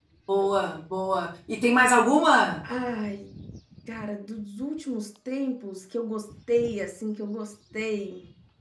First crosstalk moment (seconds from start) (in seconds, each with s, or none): none